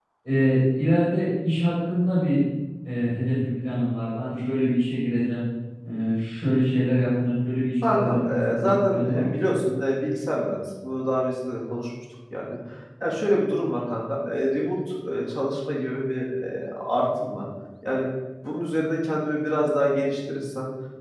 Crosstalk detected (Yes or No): Yes